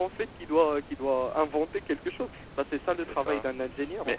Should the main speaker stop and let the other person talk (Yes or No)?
Yes